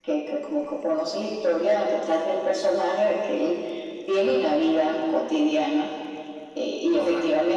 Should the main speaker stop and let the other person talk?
No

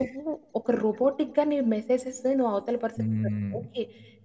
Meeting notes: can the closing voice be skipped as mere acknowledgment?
Yes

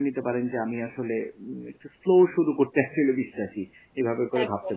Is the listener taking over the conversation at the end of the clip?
Yes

